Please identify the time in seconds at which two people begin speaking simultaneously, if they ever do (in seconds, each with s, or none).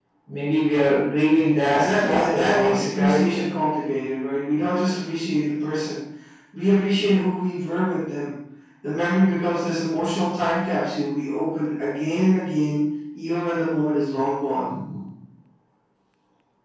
1.7 s